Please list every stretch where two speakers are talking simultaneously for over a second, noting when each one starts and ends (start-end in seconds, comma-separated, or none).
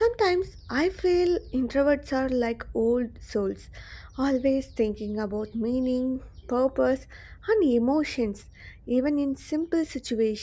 none